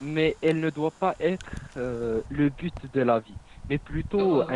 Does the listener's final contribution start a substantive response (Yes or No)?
No